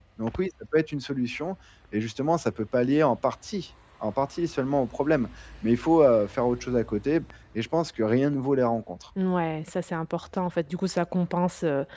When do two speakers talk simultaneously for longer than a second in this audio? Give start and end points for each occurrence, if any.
none

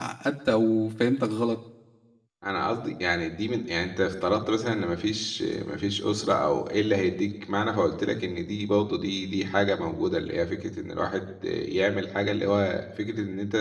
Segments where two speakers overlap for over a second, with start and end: none

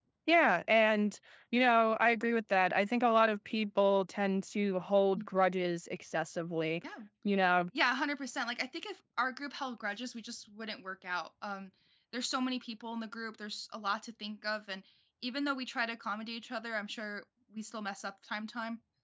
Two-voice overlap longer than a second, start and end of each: none

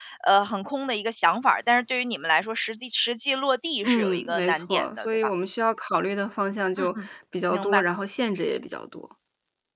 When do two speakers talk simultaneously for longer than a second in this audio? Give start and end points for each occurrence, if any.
3.8-5.1

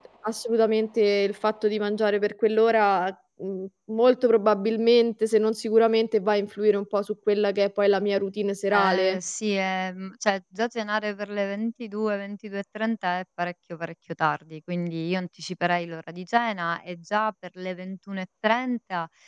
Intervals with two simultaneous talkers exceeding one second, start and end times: none

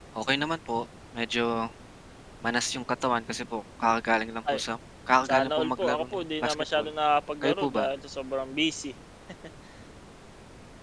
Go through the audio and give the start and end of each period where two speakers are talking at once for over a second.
5.3-6.9

